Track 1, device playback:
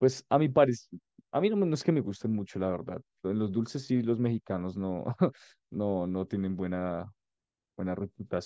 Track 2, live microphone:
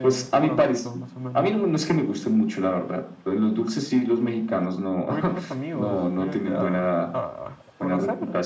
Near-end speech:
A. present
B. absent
A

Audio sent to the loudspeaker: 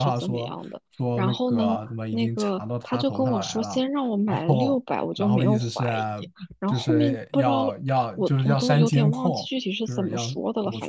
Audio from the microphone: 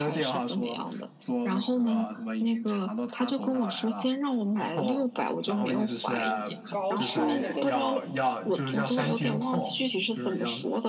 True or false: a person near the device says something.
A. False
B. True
B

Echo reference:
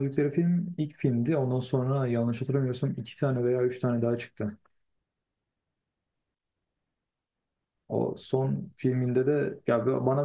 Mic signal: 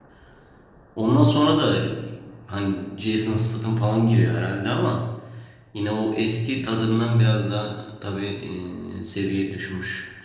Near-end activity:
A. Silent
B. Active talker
B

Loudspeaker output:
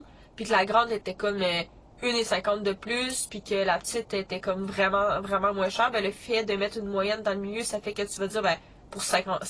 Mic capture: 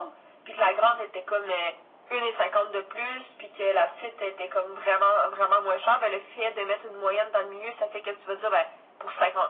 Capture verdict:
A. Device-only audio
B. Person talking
A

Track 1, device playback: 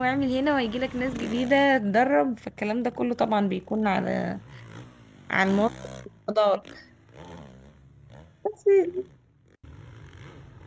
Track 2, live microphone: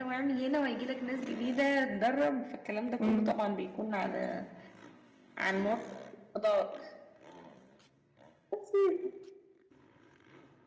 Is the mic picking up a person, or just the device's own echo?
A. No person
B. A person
B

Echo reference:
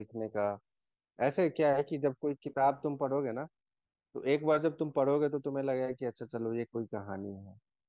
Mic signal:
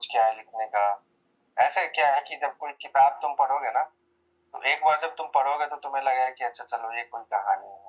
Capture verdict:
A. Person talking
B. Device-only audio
B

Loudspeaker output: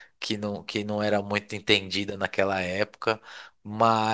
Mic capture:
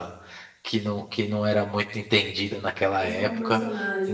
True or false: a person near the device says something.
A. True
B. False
A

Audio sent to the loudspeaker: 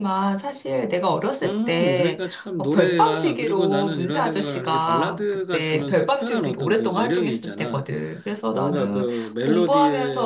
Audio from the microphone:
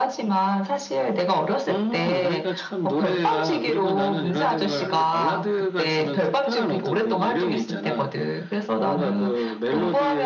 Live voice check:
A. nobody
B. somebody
A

